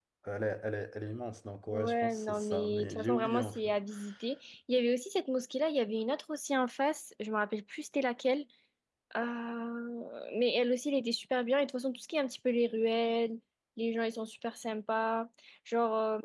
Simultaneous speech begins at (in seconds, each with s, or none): 1.7 s